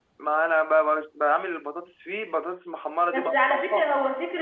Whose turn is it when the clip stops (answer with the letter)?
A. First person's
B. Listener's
B